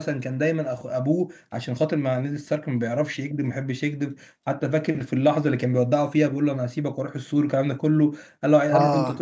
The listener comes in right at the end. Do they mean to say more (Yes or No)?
No